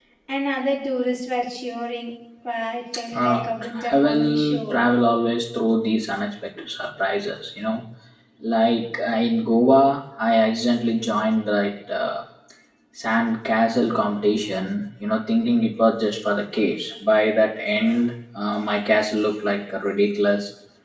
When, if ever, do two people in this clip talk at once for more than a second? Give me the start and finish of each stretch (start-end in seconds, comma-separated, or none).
3.2-4.8